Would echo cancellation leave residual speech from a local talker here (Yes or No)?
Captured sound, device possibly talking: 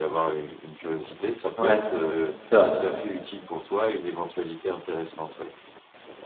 Yes